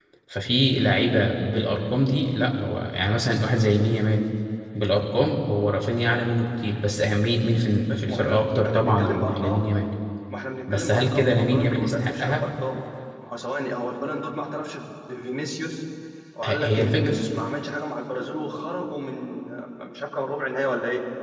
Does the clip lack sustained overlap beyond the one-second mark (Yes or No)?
No